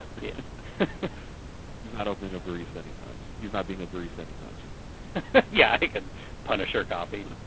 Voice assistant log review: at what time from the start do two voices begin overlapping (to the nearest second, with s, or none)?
none